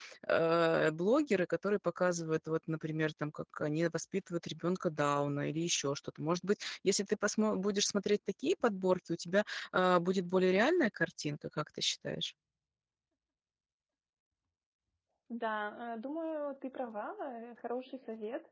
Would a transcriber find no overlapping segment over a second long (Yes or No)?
Yes